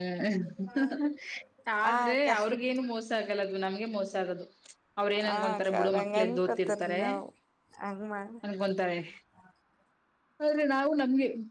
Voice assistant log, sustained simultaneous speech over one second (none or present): present